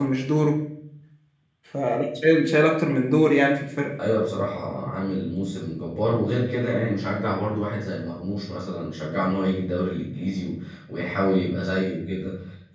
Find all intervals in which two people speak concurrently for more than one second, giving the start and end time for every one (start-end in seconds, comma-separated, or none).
none